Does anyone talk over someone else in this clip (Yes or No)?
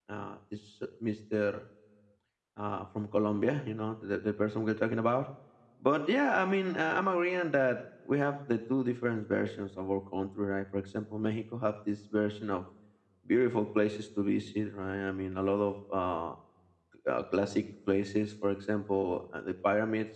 No